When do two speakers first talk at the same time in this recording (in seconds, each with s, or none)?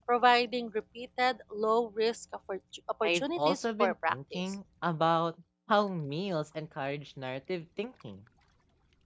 3.0 s